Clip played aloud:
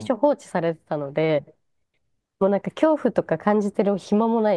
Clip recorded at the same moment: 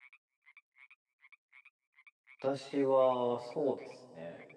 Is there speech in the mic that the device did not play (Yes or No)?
Yes